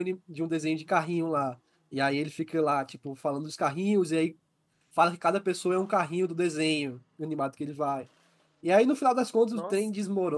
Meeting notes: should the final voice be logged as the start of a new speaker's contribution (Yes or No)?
No